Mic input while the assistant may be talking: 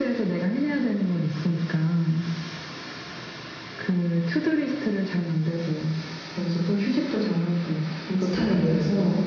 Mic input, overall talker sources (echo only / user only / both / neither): both